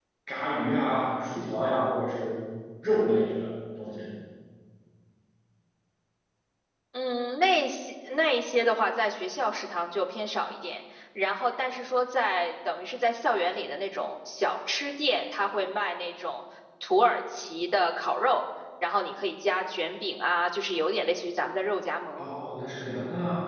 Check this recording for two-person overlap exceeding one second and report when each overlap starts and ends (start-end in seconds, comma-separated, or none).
none